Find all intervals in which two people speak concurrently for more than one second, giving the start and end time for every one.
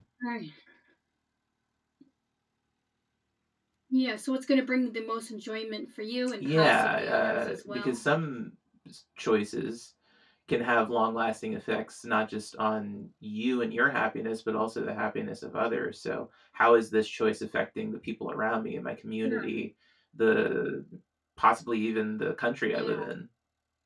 6.4-8.0

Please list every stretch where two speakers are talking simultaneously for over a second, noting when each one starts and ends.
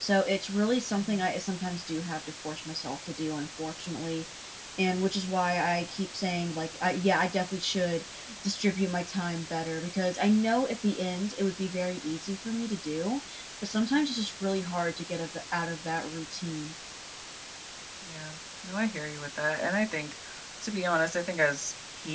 none

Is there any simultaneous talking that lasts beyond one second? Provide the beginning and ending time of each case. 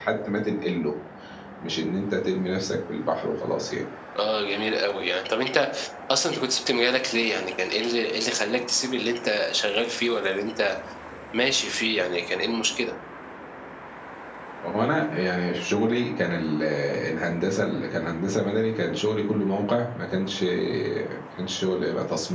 none

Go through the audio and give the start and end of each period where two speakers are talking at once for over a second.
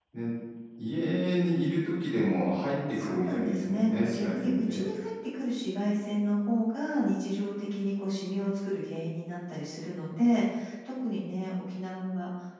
3.0-4.9

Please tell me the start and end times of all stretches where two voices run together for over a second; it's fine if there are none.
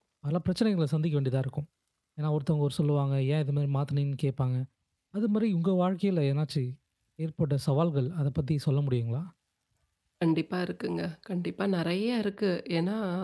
none

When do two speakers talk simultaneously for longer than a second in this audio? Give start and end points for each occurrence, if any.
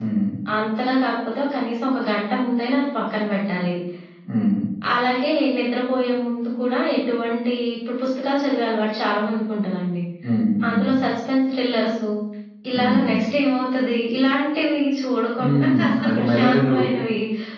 15.4-16.8

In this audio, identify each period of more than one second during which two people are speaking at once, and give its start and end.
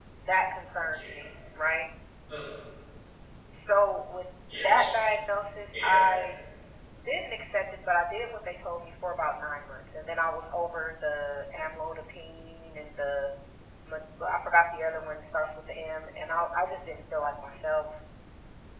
none

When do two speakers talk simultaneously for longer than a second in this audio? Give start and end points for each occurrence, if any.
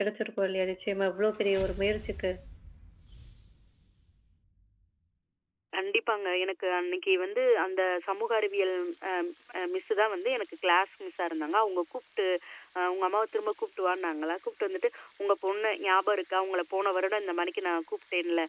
none

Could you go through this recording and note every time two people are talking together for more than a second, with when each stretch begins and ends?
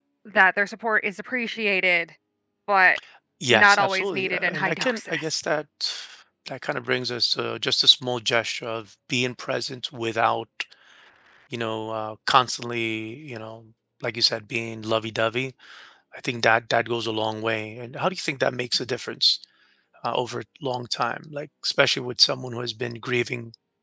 3.5-5.2

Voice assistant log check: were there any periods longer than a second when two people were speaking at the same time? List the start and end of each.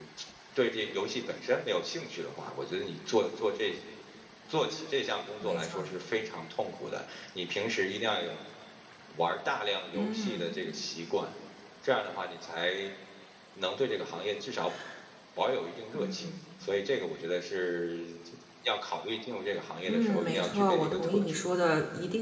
19.9-21.4

